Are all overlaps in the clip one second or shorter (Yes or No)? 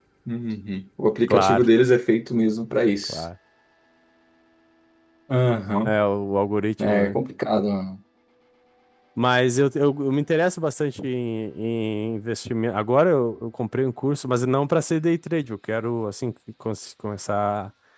Yes